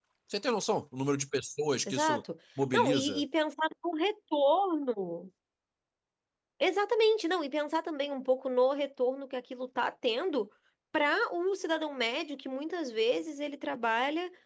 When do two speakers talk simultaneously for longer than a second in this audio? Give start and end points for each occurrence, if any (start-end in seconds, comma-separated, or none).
none